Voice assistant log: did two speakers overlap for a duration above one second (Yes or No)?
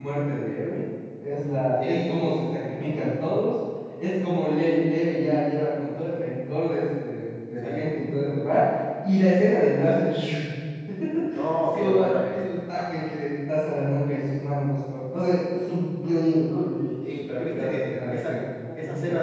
Yes